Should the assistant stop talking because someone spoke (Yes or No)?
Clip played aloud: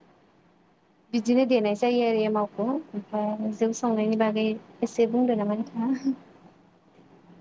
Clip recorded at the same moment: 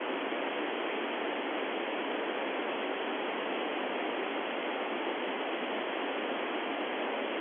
No